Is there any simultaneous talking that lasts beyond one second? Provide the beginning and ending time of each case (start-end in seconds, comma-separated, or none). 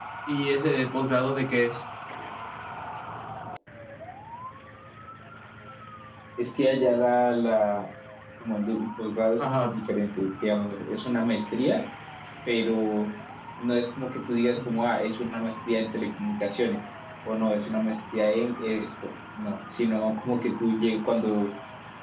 none